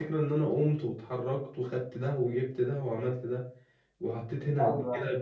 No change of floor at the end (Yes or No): Yes